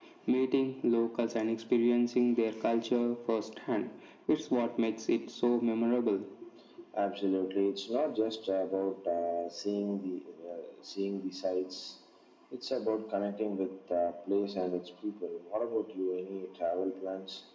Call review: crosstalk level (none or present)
none